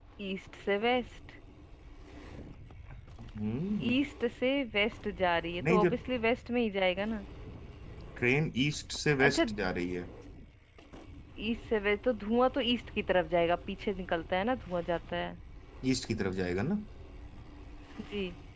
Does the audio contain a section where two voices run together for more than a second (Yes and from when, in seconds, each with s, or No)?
No